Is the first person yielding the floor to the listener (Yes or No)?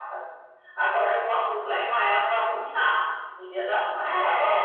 Yes